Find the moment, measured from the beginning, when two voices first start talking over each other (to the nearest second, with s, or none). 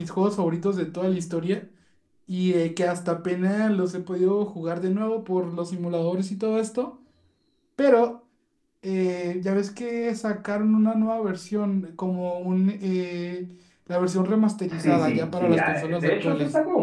15 s